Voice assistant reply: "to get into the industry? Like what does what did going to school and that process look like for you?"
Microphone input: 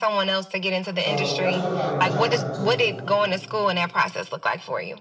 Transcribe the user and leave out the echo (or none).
So that's what probably was jumping out to me the most.